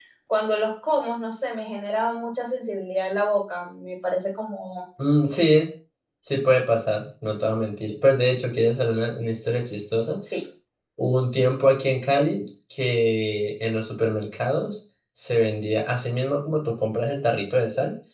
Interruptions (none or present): none